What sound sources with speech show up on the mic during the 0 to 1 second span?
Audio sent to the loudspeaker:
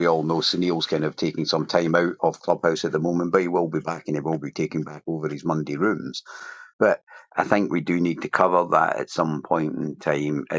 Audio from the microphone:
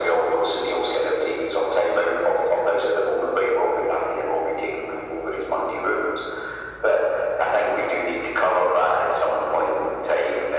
echo only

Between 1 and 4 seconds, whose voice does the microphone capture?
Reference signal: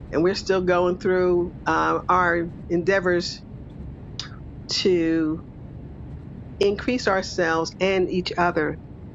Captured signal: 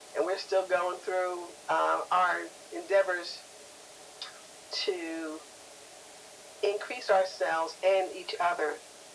echo only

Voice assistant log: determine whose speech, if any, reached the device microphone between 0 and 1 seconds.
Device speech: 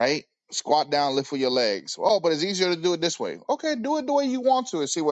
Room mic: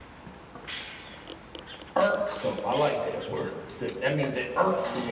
neither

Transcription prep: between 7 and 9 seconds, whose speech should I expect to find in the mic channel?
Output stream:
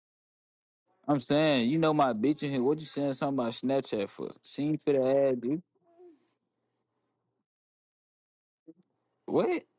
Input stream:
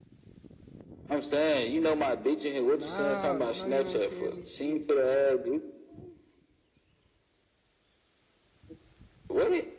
neither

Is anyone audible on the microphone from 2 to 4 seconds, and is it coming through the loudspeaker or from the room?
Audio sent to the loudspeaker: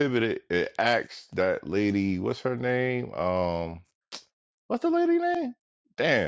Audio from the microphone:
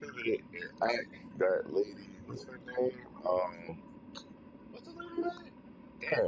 echo only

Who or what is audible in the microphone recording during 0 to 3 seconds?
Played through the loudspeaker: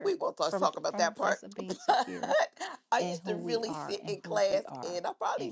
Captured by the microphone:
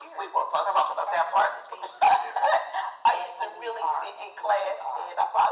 echo only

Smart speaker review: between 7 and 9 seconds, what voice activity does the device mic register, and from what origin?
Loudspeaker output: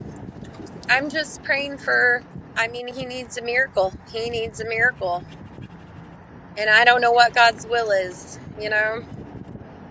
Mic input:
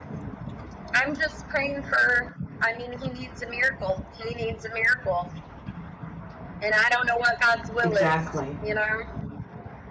both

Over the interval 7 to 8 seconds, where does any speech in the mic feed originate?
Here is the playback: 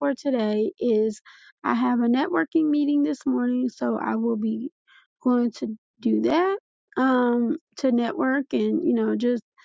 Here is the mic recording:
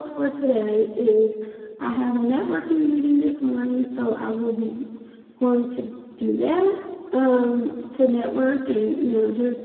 echo only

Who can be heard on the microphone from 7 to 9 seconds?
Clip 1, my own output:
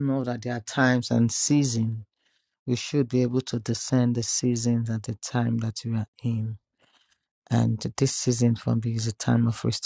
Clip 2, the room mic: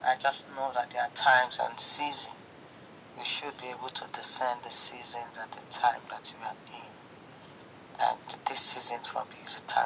echo only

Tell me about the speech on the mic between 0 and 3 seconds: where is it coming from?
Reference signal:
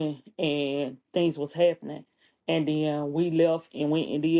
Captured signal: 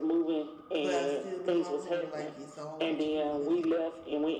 both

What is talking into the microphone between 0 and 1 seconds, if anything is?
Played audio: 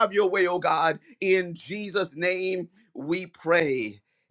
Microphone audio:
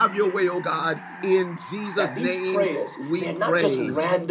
echo only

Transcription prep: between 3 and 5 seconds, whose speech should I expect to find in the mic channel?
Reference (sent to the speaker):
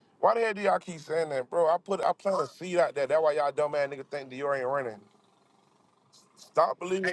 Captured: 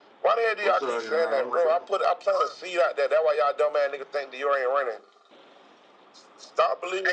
echo only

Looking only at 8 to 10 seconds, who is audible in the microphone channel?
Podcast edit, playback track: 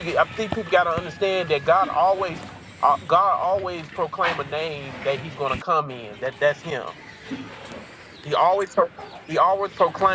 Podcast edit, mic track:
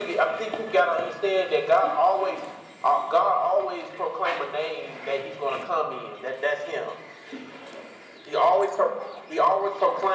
echo only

